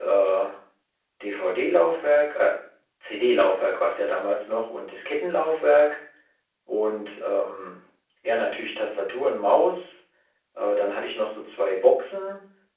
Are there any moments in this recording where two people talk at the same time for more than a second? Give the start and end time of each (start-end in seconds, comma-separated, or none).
none